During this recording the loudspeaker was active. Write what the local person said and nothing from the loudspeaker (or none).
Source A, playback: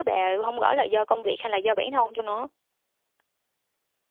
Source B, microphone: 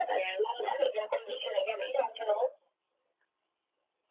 none